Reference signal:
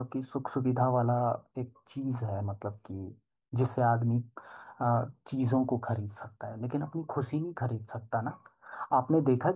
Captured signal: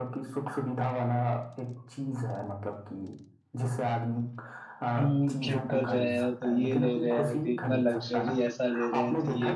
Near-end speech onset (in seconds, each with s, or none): 4.9 s